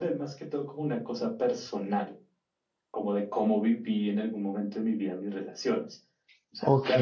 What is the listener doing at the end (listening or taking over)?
listening